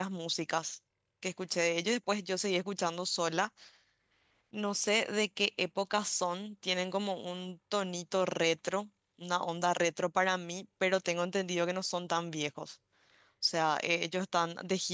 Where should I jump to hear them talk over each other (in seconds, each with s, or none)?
none